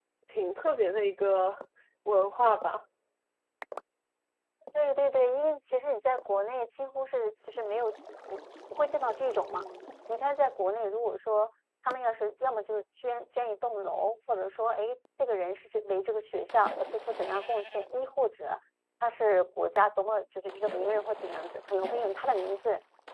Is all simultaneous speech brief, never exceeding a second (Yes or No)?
Yes